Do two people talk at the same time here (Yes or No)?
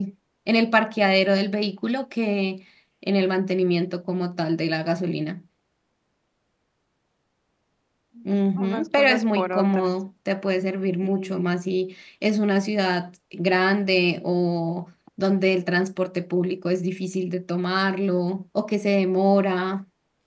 Yes